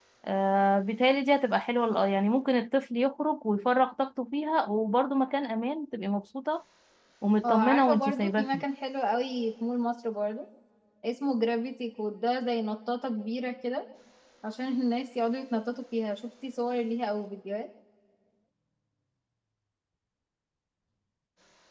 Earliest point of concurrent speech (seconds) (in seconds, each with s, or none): 7.4 s